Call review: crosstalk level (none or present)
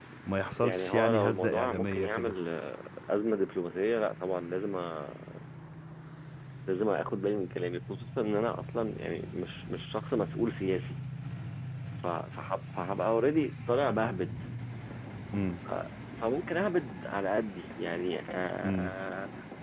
present